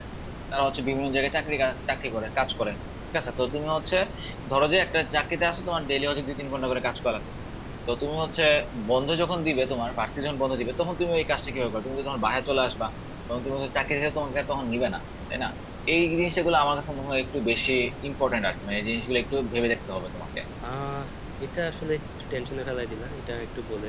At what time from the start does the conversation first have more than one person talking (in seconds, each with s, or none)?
none